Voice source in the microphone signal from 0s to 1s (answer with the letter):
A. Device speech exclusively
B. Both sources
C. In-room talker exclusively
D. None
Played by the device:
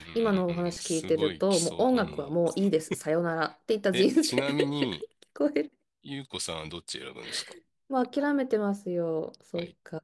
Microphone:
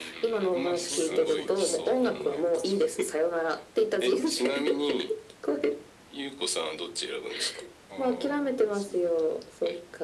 B